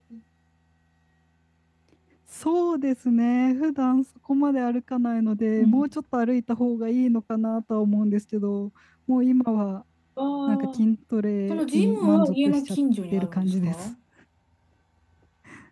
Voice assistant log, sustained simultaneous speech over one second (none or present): present